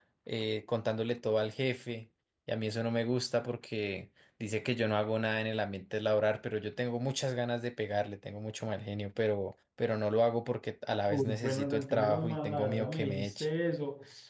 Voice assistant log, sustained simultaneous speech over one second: present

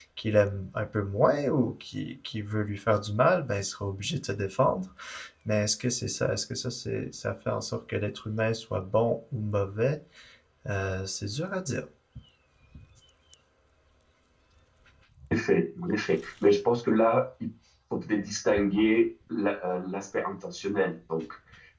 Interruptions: none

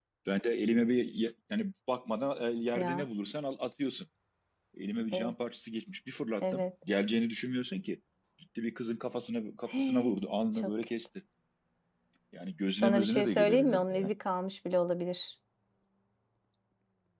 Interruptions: present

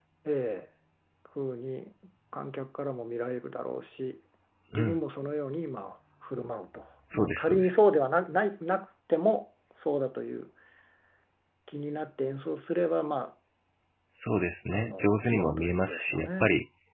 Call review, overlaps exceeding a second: present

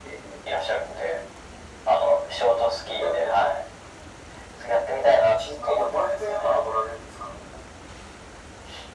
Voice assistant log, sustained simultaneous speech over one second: present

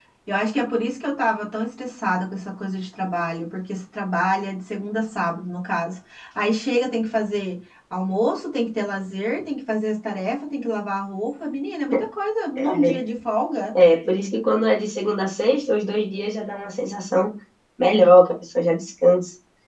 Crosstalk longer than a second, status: none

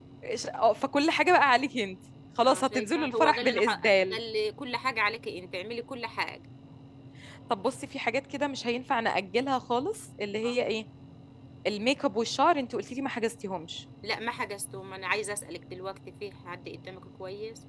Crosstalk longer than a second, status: present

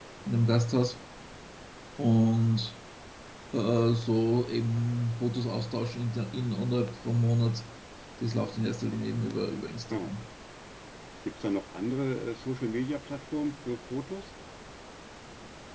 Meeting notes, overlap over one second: none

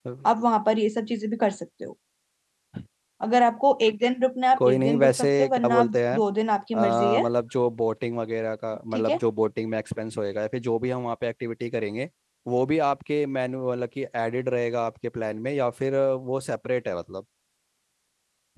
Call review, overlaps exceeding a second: present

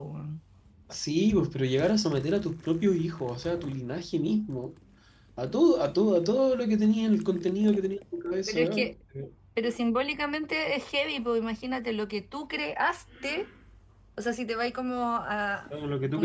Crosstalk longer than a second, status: none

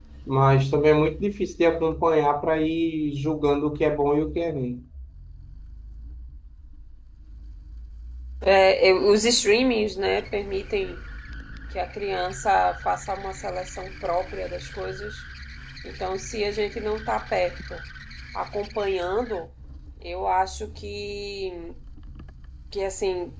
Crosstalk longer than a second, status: none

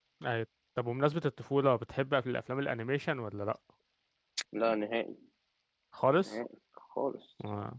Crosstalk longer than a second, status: none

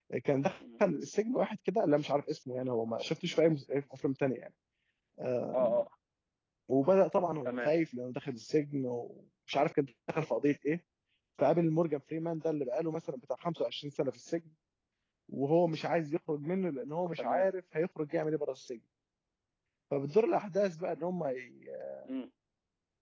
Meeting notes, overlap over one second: none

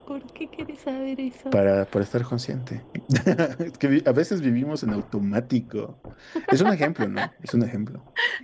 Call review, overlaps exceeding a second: none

